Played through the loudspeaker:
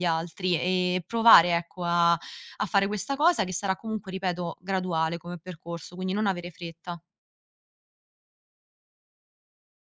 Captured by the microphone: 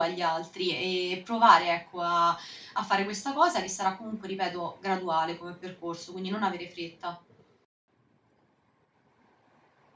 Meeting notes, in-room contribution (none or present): none